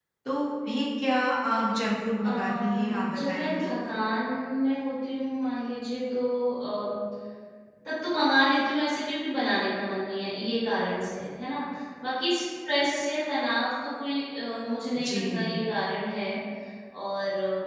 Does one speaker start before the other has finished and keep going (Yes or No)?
Yes